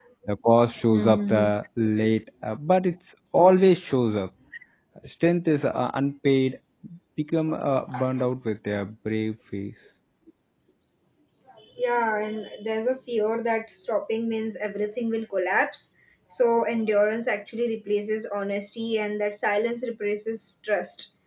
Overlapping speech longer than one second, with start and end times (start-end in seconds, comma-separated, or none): none